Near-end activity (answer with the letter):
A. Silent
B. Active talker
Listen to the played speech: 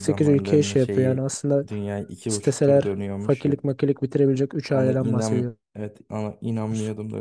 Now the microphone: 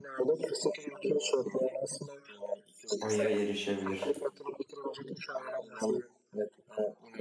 B